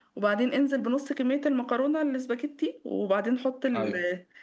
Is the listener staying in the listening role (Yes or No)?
Yes